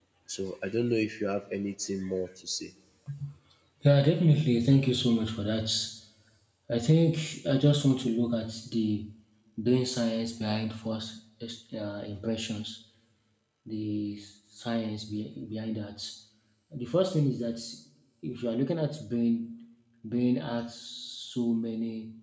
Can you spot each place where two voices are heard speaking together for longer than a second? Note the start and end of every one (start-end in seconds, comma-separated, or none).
none